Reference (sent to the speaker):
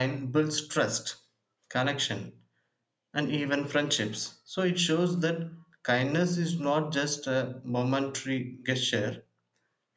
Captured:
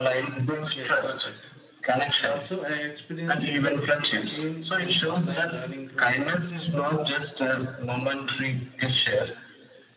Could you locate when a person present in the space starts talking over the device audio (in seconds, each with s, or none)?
0.7 s